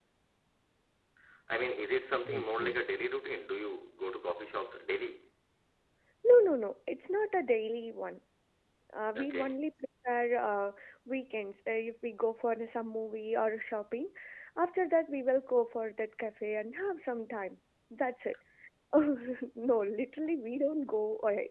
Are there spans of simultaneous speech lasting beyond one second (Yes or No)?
No